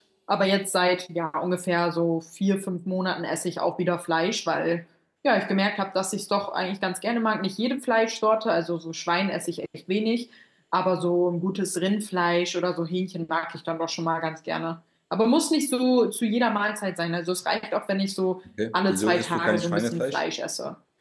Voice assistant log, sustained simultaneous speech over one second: present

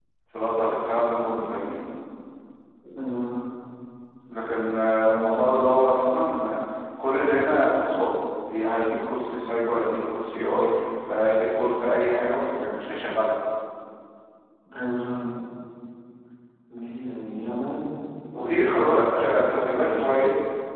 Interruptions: present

